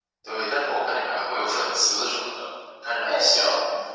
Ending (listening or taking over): taking over